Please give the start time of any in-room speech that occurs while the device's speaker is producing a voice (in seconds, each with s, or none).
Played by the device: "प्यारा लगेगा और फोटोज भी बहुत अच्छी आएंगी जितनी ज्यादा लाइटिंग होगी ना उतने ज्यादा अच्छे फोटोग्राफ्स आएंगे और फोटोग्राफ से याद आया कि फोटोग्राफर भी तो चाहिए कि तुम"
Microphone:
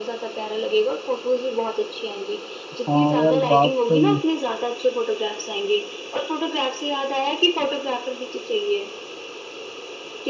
2.7 s